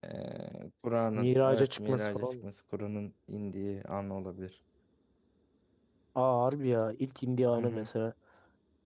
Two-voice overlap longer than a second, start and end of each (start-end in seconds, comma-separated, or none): 1.1-2.5